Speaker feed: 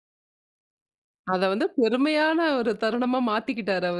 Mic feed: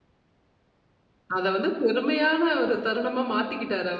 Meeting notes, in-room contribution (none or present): none